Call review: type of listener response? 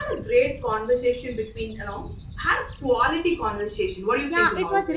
taking over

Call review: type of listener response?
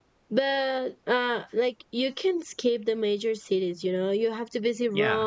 listening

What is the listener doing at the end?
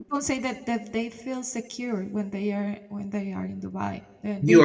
taking over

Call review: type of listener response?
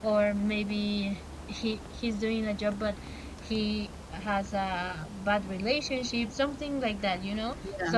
listening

